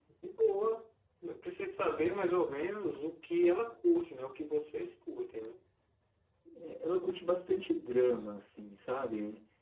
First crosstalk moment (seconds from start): none

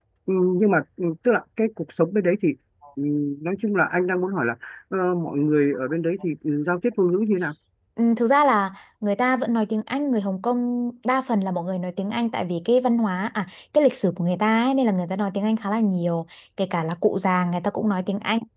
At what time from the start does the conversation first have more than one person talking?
none

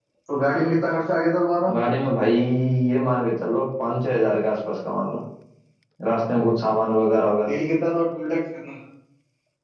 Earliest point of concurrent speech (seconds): none

